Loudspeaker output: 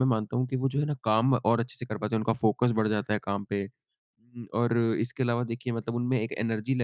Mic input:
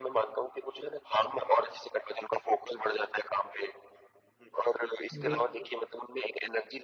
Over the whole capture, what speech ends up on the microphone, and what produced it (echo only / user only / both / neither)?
both